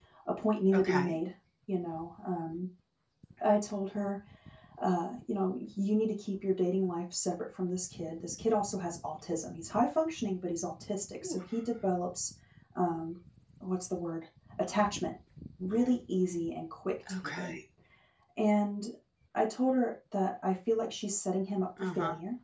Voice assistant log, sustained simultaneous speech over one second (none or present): none